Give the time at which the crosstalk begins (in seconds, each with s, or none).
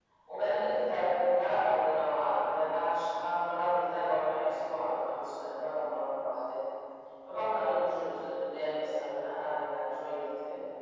none